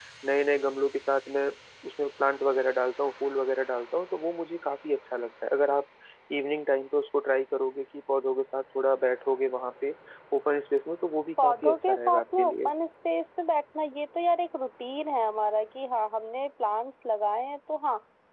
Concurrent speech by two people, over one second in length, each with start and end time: 11.4-12.7

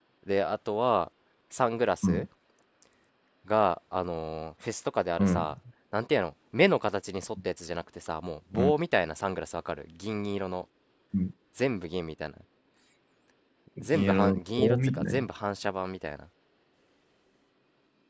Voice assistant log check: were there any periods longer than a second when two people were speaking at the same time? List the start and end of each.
13.8-15.3

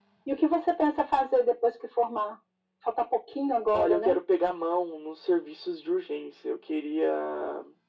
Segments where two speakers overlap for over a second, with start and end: none

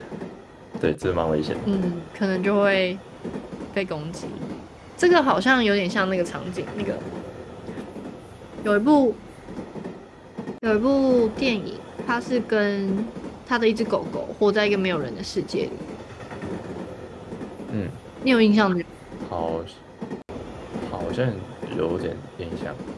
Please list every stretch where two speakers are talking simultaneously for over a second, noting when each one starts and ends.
none

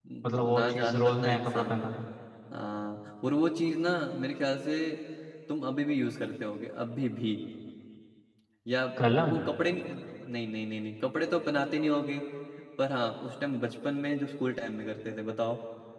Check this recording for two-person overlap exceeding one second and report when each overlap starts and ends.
0.5-1.8

